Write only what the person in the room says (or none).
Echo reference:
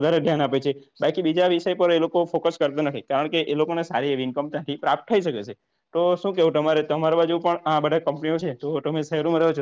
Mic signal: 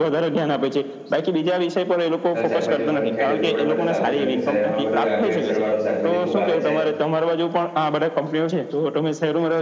હ શાકભાજી ઊાને ખાય તો એટું આપ માટે સારું છે કારણ કે શહેરમાં બધું આ ભેળસળ વાળું શાકભાજી ખુબ આવે છે.